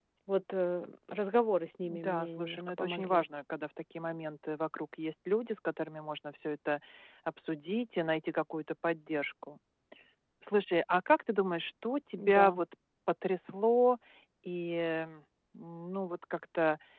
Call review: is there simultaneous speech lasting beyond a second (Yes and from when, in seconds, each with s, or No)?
Yes, from 1.8 s